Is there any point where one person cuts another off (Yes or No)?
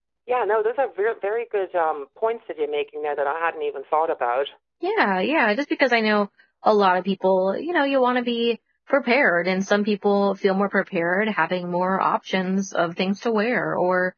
No